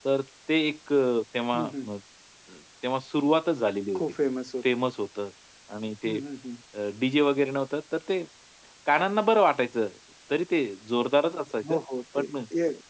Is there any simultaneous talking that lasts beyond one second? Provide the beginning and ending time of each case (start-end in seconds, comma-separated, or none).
none